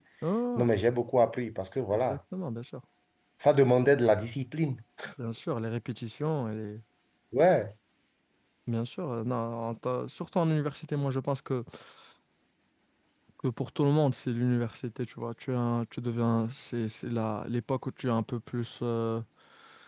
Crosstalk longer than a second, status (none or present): none